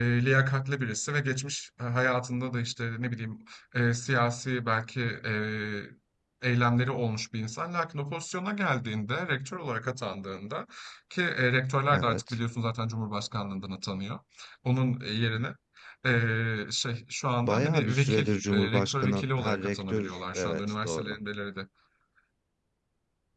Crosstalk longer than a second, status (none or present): present